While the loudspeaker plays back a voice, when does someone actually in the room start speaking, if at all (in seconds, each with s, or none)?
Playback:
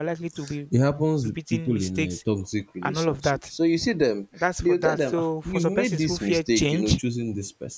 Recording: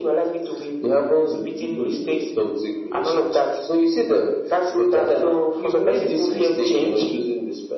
none